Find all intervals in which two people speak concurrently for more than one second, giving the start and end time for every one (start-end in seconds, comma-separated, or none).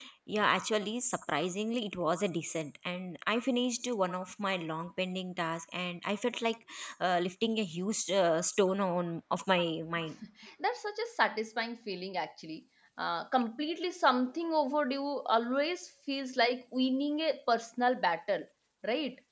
none